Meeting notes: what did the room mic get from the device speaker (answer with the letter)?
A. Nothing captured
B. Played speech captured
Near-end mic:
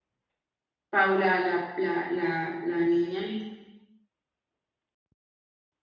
A